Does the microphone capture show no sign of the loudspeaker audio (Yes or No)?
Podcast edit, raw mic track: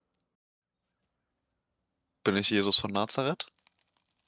Yes